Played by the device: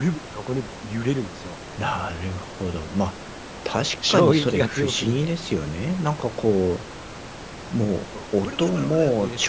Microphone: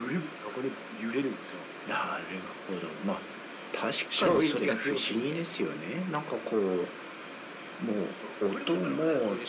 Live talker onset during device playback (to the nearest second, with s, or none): none